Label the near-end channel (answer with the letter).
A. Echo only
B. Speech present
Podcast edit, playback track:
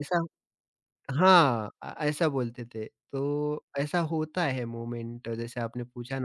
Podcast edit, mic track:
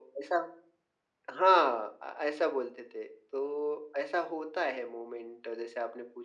A